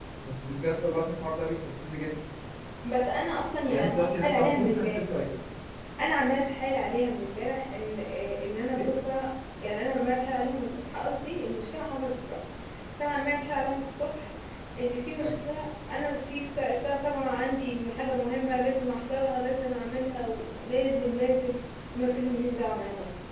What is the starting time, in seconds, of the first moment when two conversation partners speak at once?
3.7 s

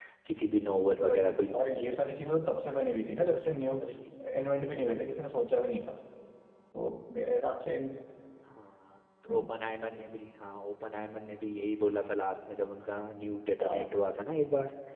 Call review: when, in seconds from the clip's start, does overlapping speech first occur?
1.0 s

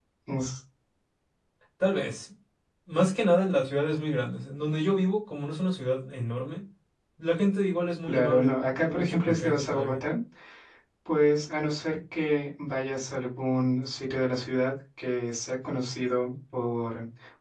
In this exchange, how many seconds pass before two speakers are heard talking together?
8.1 s

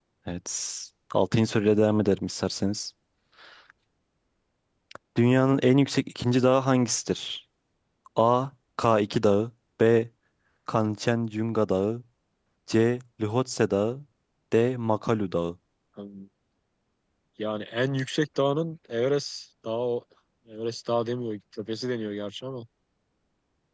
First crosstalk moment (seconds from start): none

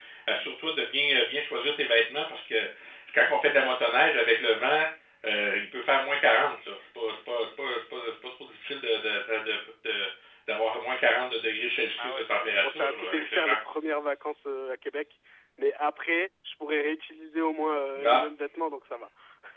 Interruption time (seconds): 12.0 s

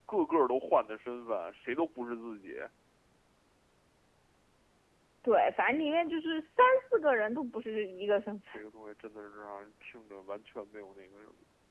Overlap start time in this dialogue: none

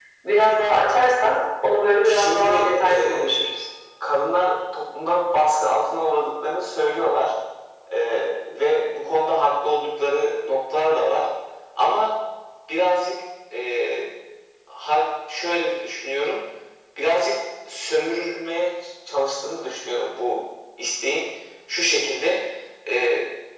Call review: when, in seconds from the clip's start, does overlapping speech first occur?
2.0 s

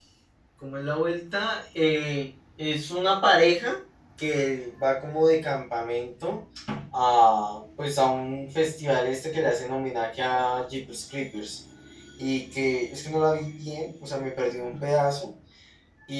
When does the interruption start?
none

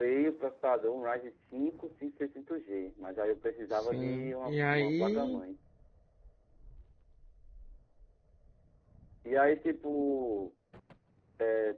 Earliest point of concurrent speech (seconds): 3.9 s

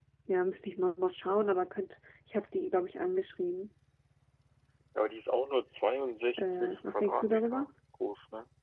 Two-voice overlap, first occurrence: 6.4 s

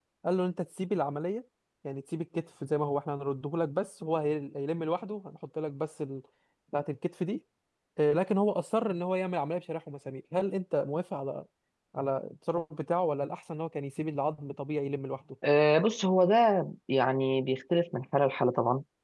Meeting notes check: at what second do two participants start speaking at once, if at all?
none

